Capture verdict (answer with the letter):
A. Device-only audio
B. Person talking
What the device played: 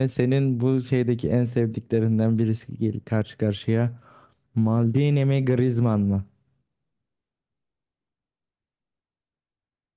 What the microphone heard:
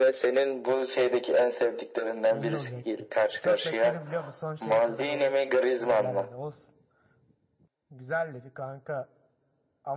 B